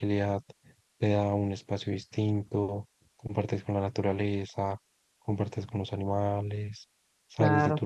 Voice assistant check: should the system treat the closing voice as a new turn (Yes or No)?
No